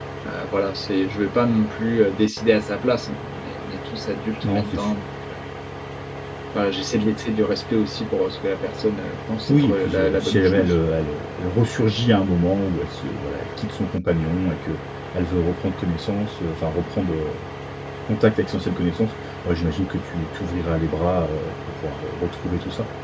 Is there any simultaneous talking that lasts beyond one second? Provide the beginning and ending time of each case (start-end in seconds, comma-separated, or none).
9.5-10.8